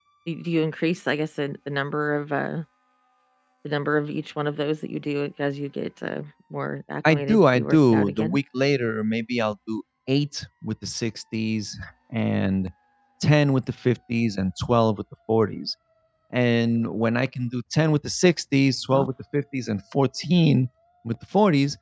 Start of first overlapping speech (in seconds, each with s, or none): 7.0 s